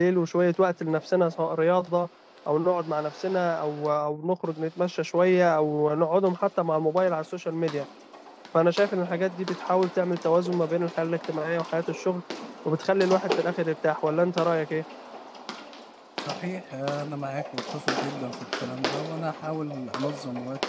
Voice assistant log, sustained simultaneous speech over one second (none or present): none